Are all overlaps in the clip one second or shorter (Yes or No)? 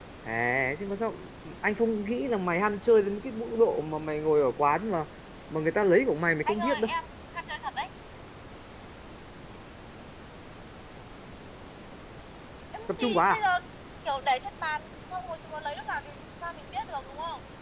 Yes